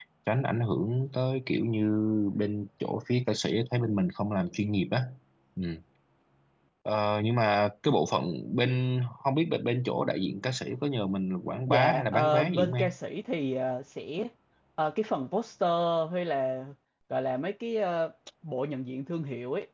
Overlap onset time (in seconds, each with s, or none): 11.7 s